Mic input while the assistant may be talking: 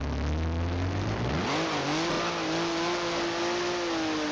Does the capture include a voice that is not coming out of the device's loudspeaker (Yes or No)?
No